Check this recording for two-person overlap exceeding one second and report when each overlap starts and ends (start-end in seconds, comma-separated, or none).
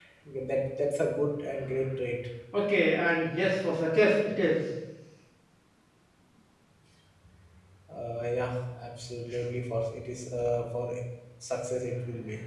none